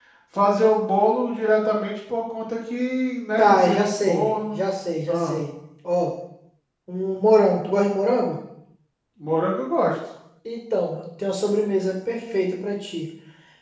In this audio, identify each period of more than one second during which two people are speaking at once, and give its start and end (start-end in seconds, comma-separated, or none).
3.4-4.6